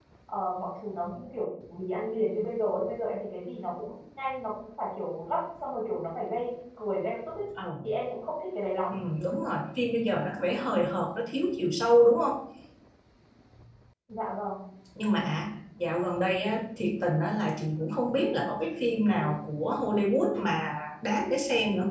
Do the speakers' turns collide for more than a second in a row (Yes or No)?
No